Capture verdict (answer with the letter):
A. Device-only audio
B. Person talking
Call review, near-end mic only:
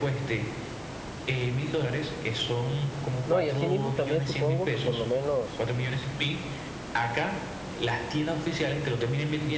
B